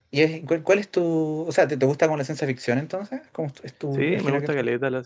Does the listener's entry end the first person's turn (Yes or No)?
Yes